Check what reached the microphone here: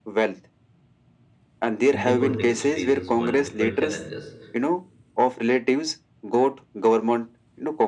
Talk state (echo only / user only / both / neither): both